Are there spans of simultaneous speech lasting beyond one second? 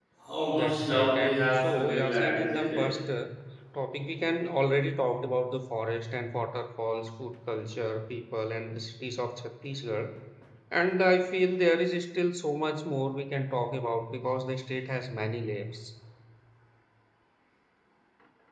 Yes, from 0.5 s

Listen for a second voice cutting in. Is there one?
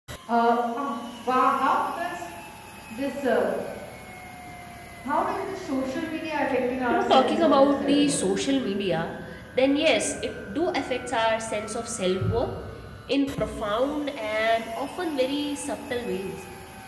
Yes, from 6.9 s

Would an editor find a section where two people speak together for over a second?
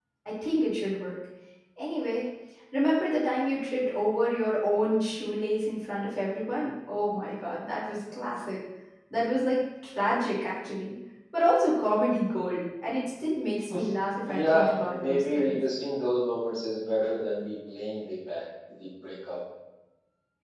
Yes, from 14.2 s

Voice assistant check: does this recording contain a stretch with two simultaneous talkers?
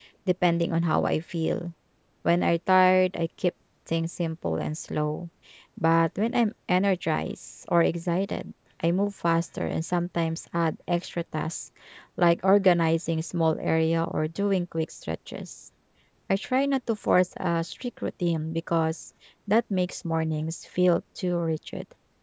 No

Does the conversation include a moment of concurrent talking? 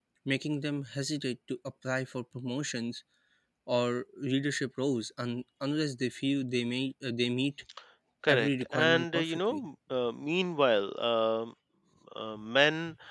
Yes, from 8.3 s

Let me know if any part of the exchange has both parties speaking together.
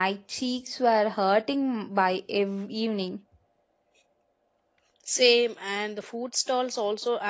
No

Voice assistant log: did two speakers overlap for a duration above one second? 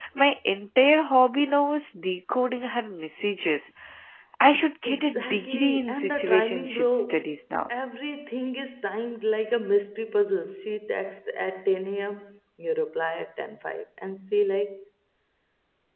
Yes, from 4.8 s

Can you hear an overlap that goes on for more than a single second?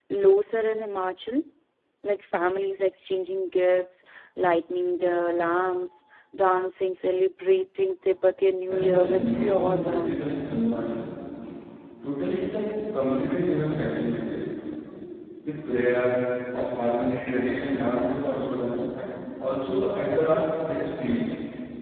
Yes, from 8.7 s

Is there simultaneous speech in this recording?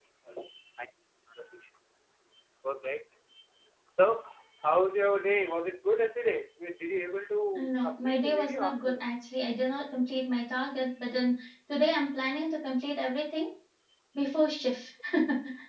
Yes, from 7.5 s

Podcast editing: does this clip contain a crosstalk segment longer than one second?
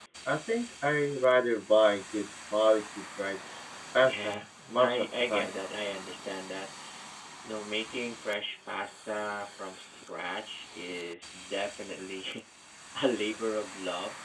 Yes, from 4.0 s

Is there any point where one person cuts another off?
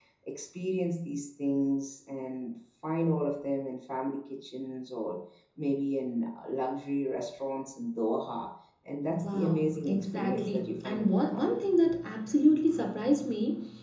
Yes, from 9.0 s

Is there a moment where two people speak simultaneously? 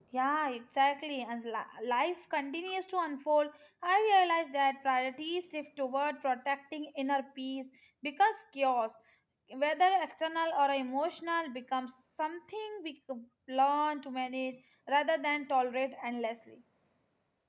No

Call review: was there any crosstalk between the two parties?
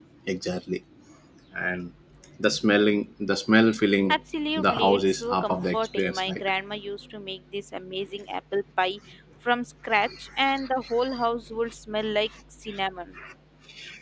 Yes, from 4.6 s

